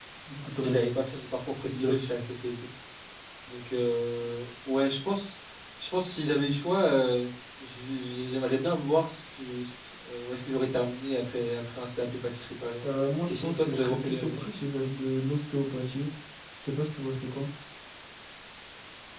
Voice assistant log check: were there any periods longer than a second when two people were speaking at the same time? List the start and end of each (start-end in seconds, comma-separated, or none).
13.3-14.6